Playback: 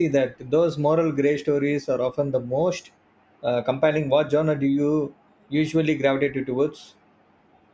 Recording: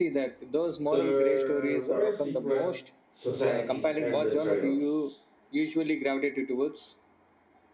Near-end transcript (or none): There were secret societies and betrayals.